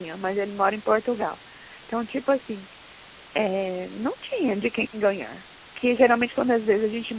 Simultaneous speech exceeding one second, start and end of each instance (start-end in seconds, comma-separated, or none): none